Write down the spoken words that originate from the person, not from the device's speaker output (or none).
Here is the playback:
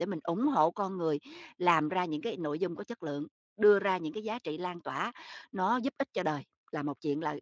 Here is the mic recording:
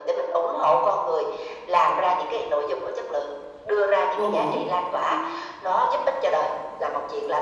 vô bổ,